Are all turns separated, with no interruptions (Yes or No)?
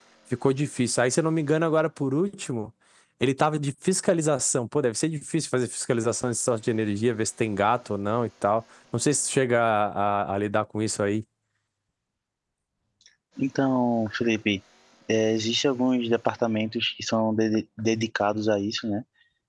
Yes